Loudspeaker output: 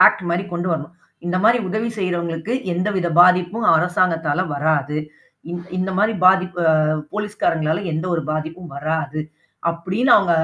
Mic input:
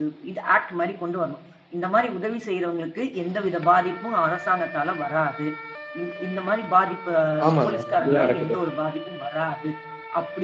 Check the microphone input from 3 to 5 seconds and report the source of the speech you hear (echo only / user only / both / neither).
echo only